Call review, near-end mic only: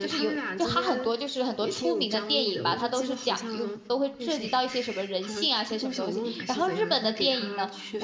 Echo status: present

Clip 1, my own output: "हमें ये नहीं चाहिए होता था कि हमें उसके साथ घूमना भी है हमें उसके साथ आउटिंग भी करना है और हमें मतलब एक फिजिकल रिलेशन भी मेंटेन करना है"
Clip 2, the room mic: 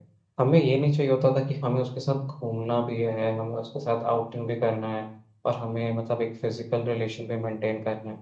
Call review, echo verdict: present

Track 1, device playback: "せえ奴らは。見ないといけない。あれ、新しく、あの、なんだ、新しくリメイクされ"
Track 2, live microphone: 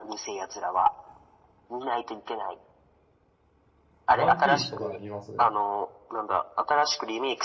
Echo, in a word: present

